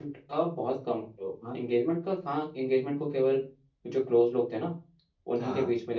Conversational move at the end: listening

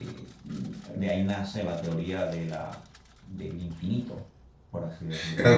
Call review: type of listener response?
taking over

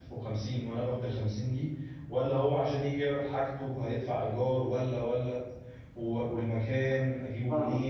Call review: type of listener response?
taking over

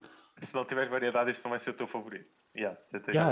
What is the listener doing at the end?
taking over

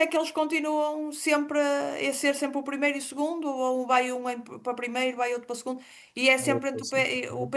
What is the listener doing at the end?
listening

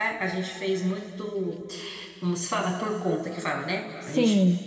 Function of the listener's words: listening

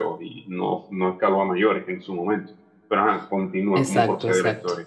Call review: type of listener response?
taking over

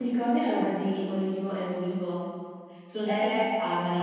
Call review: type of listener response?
listening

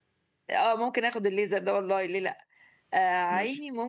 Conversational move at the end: listening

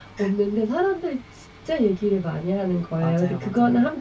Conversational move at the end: listening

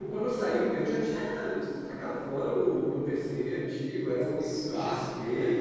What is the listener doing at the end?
listening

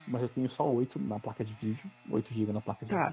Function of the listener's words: taking over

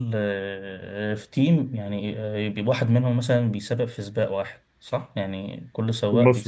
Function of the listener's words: taking over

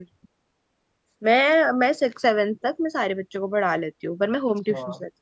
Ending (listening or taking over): taking over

